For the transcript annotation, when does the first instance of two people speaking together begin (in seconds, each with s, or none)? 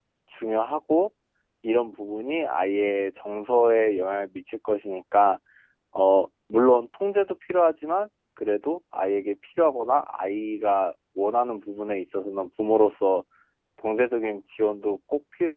none